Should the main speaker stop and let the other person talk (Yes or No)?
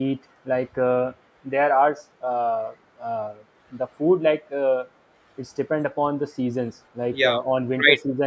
No